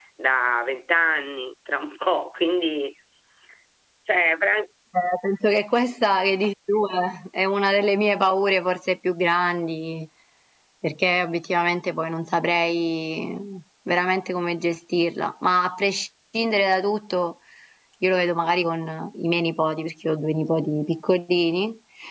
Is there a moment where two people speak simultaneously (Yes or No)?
No